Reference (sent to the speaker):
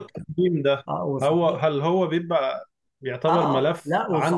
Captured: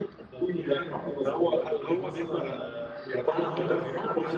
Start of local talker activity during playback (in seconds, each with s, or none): 0.3 s